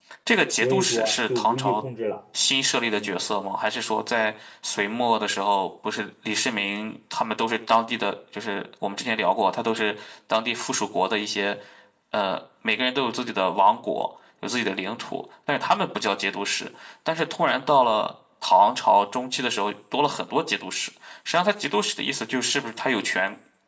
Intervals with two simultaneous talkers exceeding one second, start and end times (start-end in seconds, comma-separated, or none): 0.6-1.8